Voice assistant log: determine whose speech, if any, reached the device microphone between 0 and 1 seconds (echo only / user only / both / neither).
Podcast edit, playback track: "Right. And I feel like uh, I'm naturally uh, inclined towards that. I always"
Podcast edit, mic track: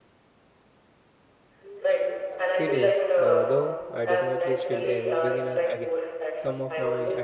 neither